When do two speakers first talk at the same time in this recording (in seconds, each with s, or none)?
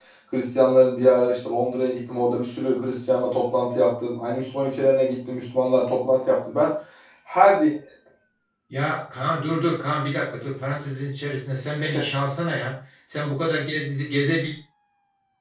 none